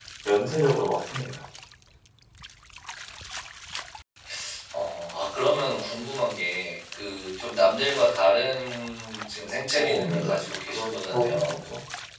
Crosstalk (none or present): present